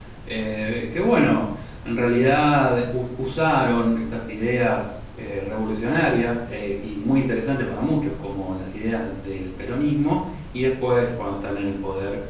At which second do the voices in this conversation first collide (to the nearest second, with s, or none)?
none